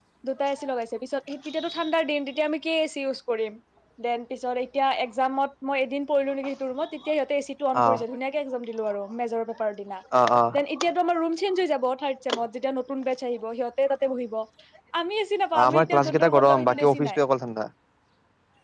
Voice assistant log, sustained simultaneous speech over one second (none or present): present